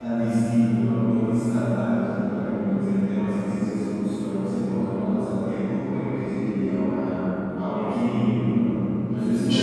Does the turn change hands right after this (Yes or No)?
No